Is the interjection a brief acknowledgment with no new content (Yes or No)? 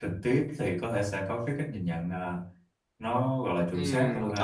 No